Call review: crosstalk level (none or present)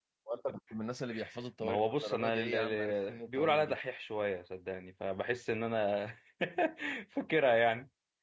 present